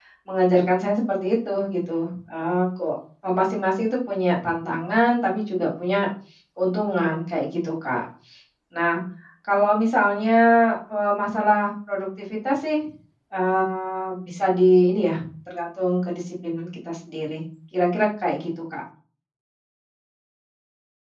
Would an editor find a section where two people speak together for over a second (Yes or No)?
No